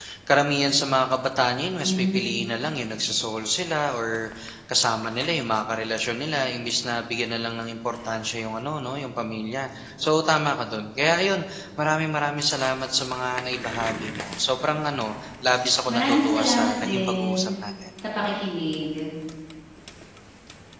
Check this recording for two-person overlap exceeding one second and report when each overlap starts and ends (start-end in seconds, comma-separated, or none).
15.9-17.5